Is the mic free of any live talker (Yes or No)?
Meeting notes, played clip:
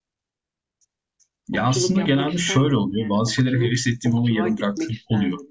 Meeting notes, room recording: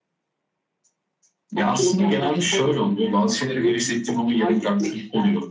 Yes